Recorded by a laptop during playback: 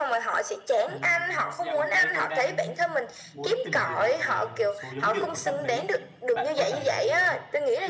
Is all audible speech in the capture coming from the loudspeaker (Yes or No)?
No